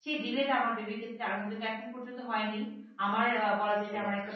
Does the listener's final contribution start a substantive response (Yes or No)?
No